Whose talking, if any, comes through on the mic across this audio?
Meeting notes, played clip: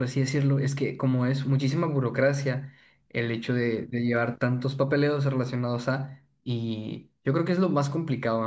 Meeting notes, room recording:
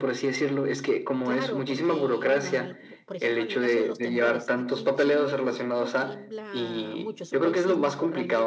both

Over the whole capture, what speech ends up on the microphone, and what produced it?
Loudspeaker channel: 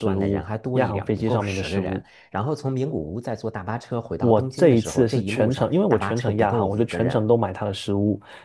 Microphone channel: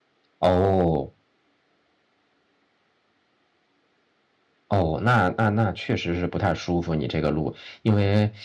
user only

